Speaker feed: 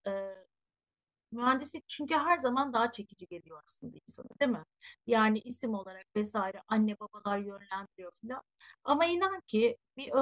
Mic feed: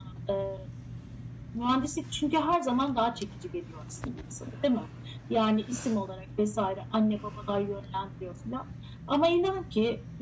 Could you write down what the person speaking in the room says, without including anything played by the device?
none

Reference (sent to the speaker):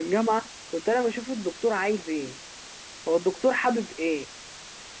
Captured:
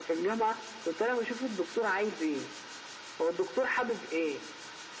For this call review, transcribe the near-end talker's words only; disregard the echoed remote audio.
none

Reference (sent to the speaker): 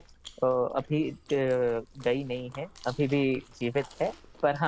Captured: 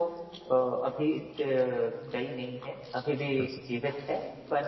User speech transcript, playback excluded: कर सकते

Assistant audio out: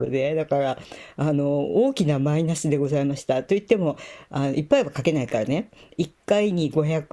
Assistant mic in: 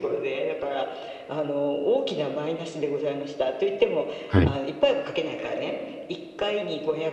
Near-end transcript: はい。

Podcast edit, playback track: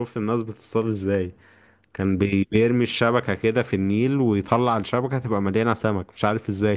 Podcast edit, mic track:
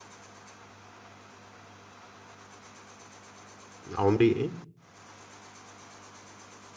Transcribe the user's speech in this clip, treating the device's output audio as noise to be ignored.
عمري ايه

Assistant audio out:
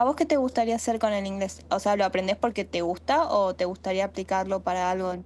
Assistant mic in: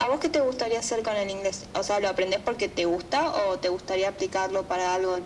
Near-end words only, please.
none

